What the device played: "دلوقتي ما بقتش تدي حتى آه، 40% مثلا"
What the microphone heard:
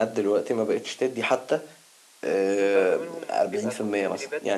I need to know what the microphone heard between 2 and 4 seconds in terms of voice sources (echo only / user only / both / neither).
both